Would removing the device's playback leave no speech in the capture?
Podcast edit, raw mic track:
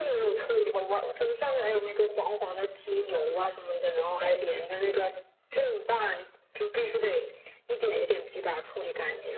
Yes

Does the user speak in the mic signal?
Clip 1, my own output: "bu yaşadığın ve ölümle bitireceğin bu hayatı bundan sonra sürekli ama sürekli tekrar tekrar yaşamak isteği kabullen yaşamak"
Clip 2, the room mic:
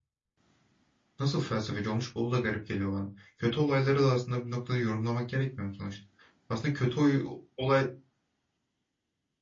Yes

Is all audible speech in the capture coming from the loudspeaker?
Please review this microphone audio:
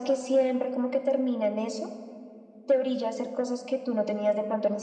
Yes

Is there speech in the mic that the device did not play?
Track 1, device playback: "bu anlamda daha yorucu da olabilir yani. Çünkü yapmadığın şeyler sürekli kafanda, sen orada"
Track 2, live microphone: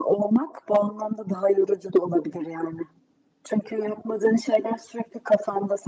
No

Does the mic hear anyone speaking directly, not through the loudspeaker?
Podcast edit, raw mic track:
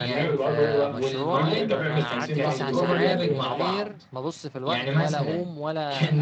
Yes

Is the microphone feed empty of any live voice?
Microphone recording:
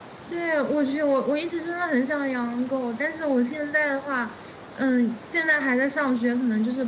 Yes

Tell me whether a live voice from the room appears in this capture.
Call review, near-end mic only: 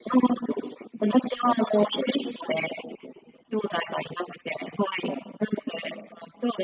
No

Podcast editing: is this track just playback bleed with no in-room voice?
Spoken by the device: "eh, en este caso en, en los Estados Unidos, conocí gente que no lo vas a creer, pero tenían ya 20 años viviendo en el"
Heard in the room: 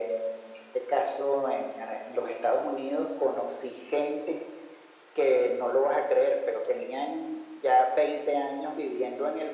Yes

